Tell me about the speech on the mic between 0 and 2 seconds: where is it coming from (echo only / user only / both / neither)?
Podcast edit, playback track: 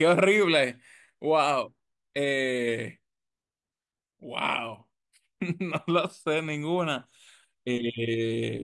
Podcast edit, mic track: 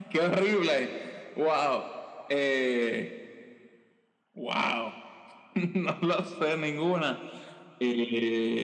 echo only